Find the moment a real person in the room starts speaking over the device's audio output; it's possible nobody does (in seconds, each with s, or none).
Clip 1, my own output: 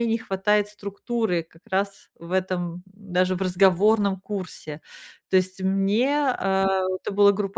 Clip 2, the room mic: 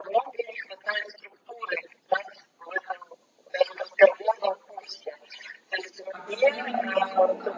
6.1 s